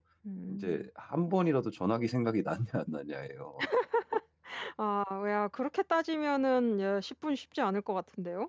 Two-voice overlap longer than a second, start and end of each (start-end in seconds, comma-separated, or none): none